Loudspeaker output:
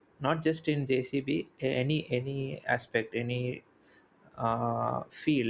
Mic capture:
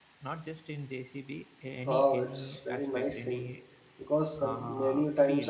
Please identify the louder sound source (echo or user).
user